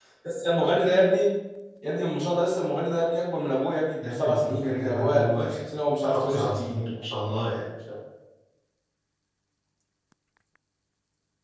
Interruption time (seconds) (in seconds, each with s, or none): 4.0 s